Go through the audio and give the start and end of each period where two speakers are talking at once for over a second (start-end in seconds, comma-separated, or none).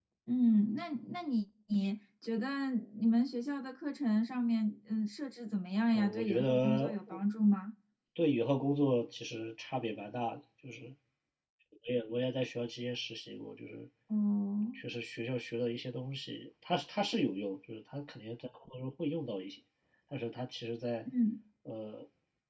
5.9-7.2